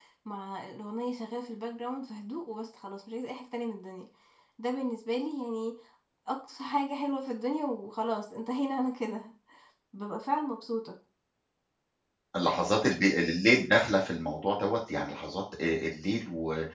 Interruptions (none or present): none